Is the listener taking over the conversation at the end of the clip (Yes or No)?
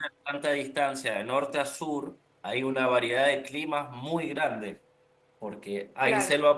No